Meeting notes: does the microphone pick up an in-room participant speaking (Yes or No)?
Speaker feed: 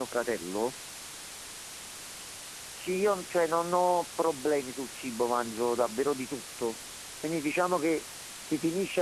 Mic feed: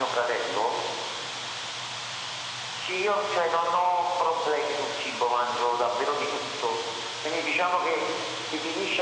No